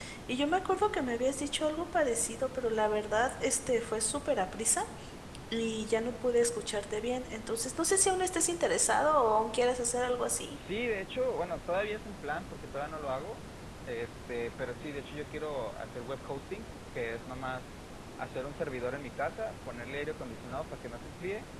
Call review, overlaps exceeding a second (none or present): none